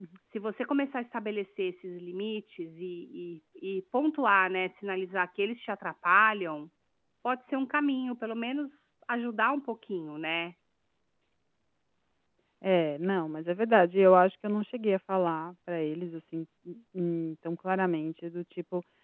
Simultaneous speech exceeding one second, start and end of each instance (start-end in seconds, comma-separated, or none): none